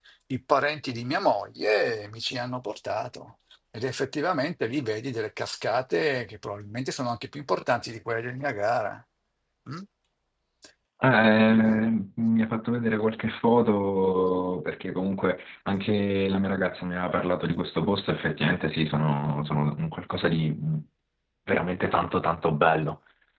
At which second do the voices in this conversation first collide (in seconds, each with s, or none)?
none